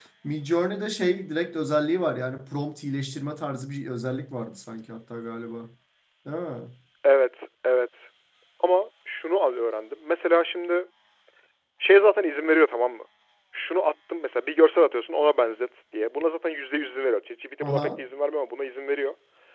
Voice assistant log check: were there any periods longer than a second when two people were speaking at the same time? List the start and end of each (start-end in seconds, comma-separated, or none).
none